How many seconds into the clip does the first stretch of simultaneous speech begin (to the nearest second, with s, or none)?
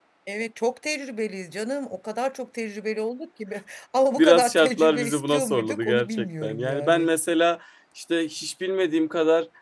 4 s